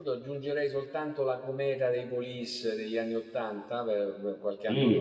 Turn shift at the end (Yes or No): Yes